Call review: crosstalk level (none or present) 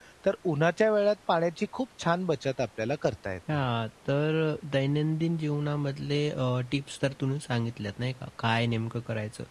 none